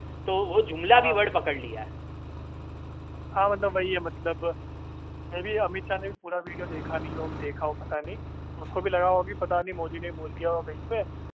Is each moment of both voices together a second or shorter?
Yes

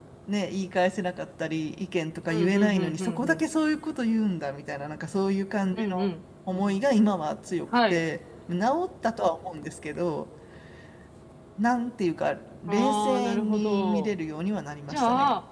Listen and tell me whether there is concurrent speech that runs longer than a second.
Yes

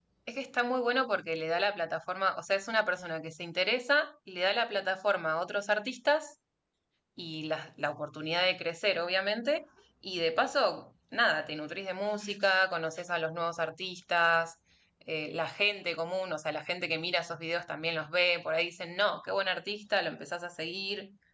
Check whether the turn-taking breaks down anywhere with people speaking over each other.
No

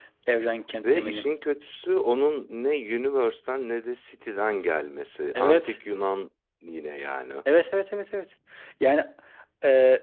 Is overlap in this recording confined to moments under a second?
Yes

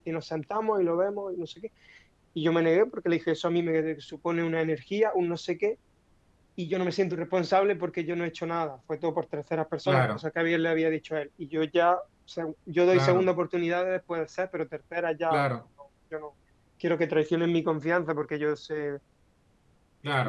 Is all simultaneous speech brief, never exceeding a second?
Yes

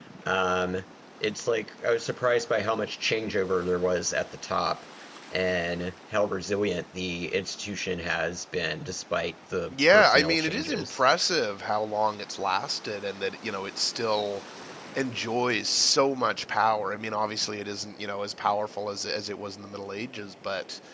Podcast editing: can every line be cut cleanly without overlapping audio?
No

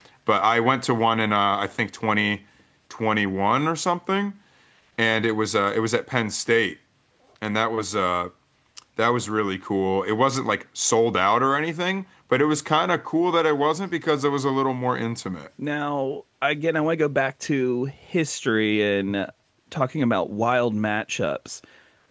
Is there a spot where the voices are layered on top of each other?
No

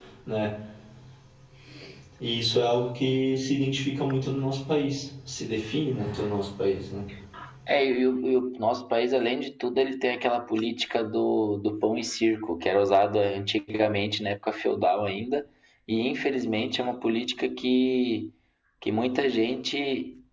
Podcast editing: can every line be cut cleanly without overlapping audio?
Yes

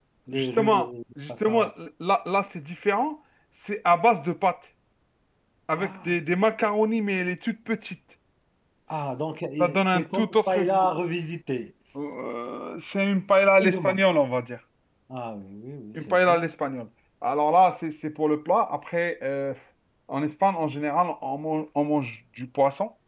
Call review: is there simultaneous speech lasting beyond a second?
Yes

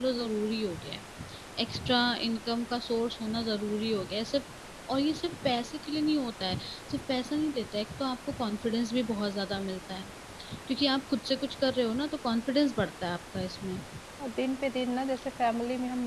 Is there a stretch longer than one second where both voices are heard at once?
No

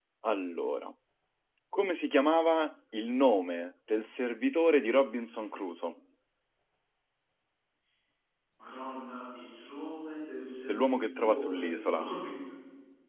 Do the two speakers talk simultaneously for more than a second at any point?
Yes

